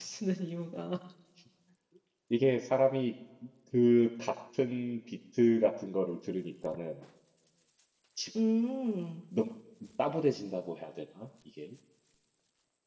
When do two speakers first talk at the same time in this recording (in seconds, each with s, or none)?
none